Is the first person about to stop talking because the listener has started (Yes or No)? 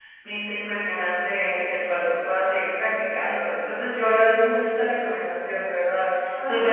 No